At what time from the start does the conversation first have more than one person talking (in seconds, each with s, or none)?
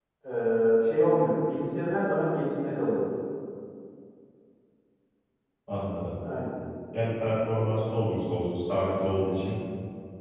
none